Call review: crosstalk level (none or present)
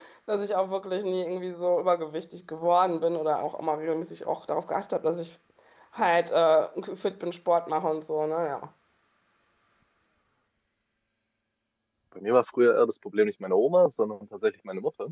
none